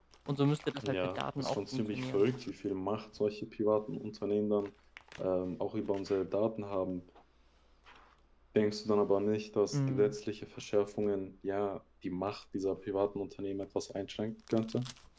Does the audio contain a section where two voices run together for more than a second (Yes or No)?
Yes